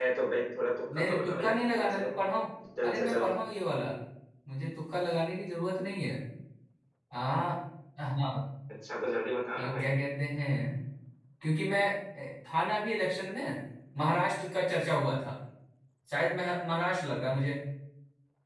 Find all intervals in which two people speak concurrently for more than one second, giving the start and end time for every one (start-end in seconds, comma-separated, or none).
0.9-2.2